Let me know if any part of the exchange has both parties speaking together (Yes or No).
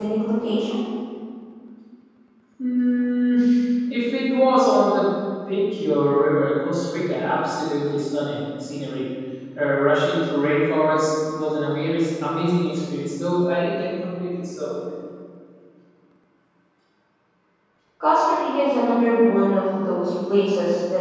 No